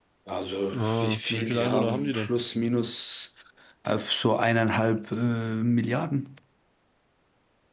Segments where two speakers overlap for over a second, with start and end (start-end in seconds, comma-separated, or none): 0.8-2.3